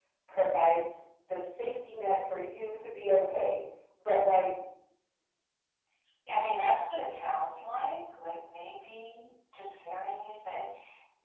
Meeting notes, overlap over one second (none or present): none